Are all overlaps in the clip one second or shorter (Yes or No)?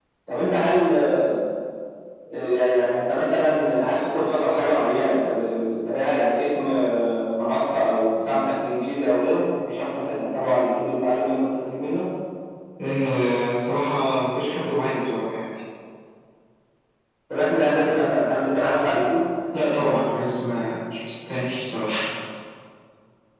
Yes